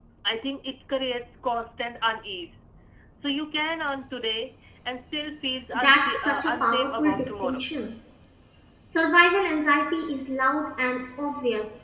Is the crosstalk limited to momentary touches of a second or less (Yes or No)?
No